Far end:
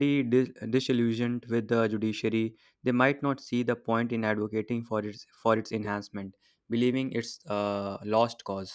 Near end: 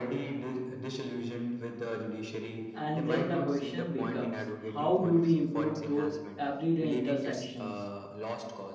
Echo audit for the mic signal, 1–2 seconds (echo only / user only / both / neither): echo only